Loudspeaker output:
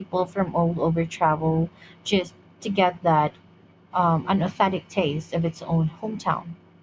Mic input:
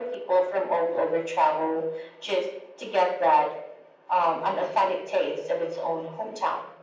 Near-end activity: none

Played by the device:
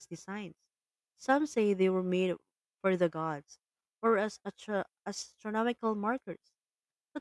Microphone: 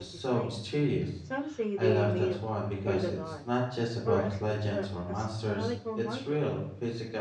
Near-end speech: present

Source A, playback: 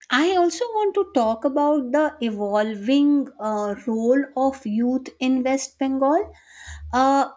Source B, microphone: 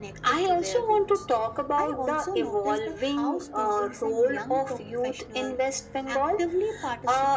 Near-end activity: present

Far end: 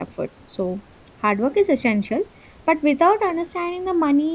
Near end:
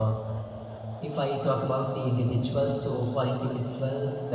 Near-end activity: present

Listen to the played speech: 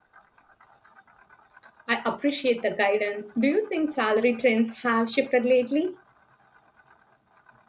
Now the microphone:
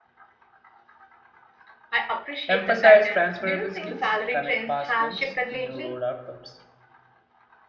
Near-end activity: present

